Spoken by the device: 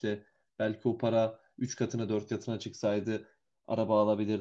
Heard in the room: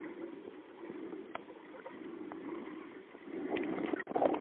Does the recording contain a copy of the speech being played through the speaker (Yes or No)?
No